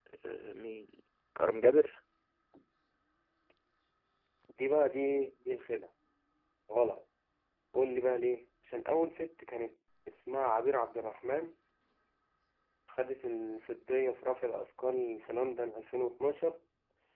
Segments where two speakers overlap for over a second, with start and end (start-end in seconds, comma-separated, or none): none